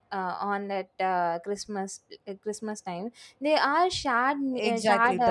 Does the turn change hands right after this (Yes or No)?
Yes